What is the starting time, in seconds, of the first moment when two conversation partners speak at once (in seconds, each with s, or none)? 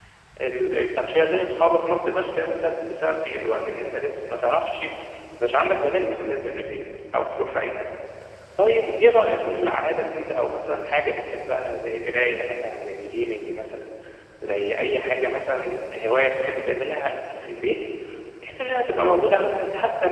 none